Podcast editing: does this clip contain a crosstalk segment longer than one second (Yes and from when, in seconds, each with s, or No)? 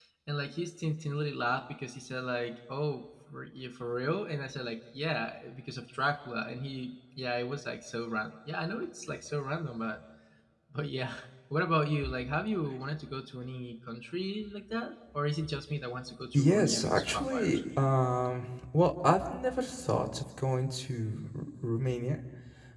Yes, from 16.3 s